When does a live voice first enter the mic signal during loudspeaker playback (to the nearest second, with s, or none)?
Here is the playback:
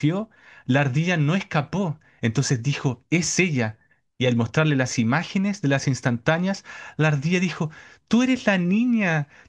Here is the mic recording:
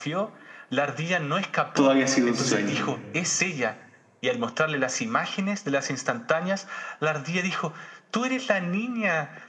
2 s